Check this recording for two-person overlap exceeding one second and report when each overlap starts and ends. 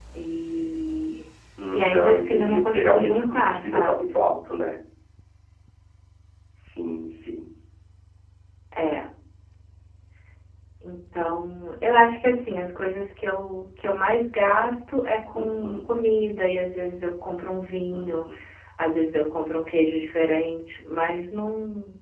1.8-4.2

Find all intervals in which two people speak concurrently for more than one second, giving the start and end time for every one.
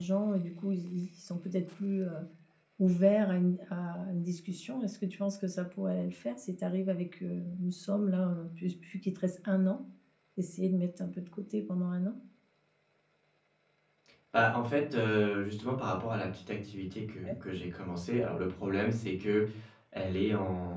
none

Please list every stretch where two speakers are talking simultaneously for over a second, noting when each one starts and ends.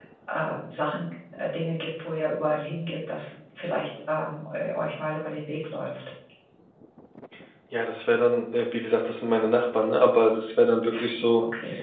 none

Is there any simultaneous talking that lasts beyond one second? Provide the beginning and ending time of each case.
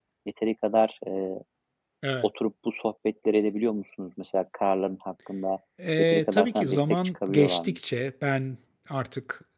6.0-7.8

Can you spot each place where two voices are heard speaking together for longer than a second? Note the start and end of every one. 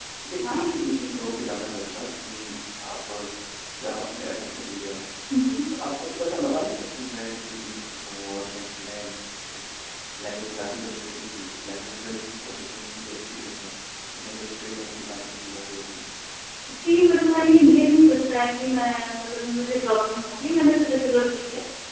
none

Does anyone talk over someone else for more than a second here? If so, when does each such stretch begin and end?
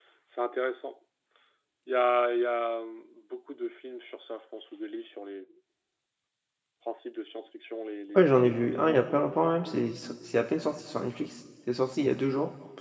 8.1-9.8

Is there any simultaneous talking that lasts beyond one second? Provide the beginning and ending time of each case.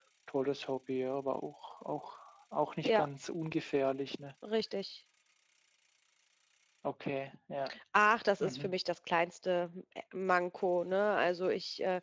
none

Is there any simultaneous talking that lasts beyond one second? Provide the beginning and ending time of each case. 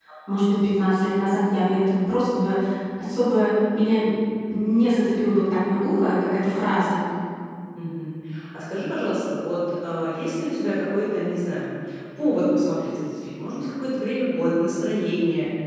none

